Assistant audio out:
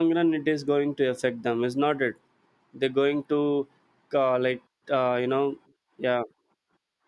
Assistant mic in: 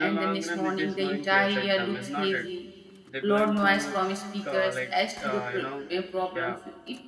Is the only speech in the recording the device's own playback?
No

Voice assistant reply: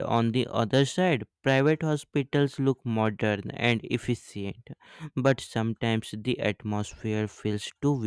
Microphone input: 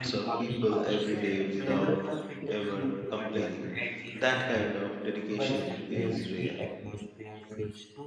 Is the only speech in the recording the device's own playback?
No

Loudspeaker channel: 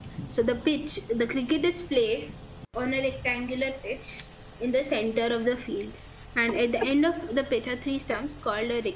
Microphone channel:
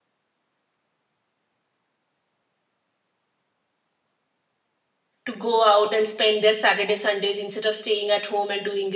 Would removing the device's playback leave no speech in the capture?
No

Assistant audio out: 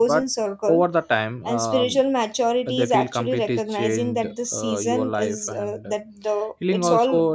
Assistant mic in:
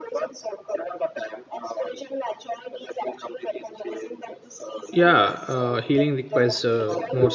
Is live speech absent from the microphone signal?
No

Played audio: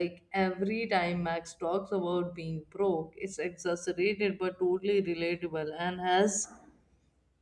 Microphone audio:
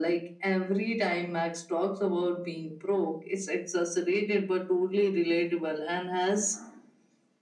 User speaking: No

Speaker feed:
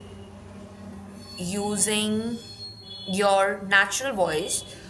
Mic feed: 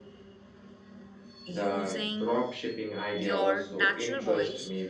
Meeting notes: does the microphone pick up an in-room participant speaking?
Yes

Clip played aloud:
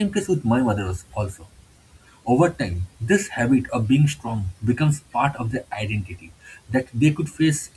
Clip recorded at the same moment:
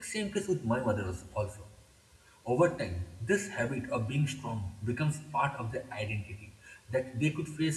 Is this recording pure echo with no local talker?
Yes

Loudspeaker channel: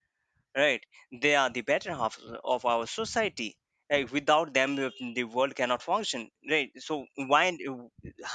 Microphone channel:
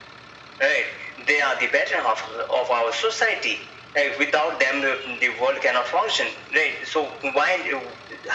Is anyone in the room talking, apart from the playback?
No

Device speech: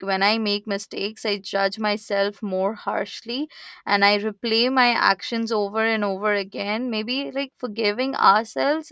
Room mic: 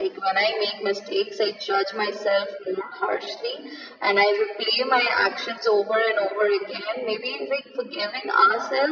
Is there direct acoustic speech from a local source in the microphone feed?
No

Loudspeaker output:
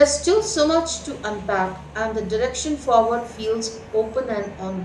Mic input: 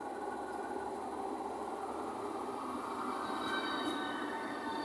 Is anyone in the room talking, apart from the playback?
No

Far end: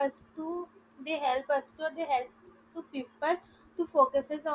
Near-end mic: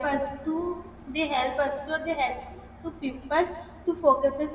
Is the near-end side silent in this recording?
Yes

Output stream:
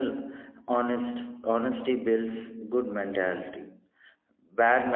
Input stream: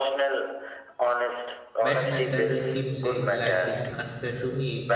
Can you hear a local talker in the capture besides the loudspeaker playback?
Yes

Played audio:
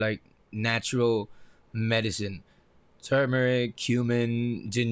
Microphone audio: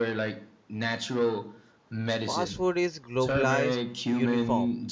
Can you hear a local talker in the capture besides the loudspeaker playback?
Yes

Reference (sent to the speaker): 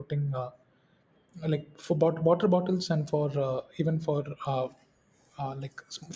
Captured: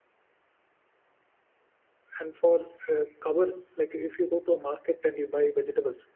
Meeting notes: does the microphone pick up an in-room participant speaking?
Yes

